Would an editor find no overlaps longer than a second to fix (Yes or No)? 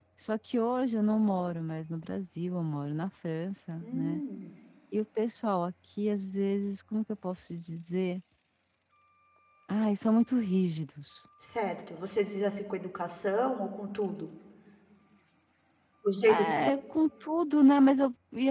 Yes